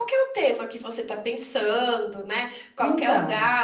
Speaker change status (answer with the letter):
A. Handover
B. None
B